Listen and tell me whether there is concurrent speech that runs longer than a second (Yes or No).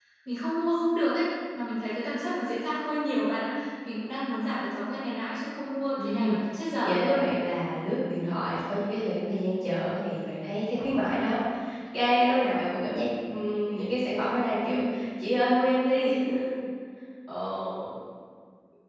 No